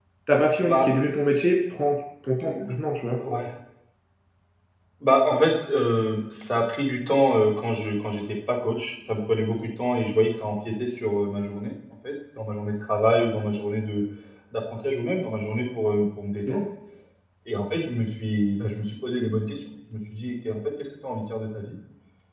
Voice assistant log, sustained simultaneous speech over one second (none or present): none